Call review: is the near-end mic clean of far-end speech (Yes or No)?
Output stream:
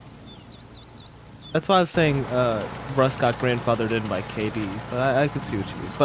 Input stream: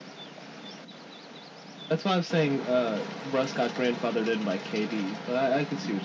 No